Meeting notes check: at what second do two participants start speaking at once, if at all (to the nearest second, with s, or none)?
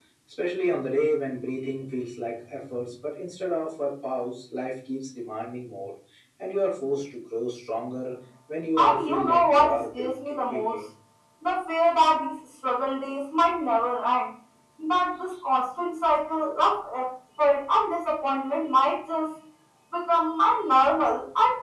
9 s